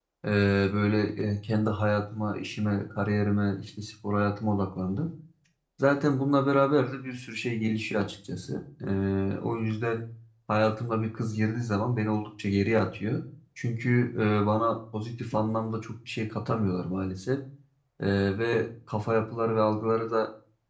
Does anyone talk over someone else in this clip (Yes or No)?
No